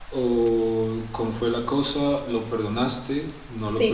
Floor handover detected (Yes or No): Yes